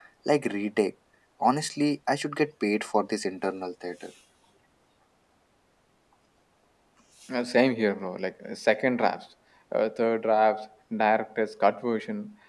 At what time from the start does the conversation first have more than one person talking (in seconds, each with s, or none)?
none